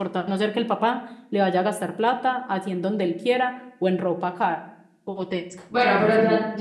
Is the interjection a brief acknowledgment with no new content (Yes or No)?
No